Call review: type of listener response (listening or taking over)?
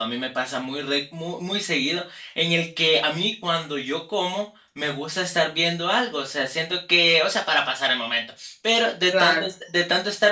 listening